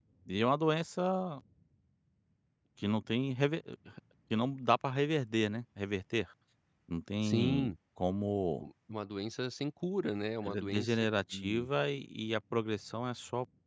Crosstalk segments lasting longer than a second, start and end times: 10.4-11.7

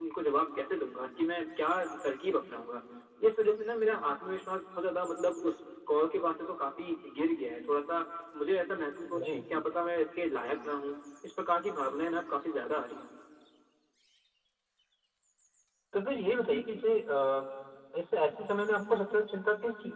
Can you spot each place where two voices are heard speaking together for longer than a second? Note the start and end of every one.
none

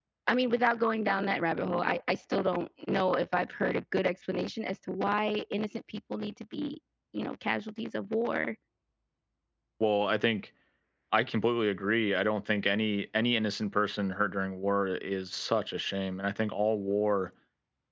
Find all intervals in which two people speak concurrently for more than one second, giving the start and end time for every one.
none

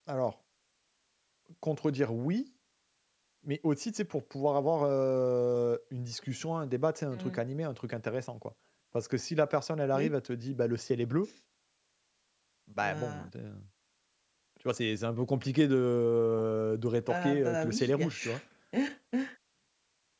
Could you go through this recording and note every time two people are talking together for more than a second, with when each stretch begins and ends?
17.1-18.3

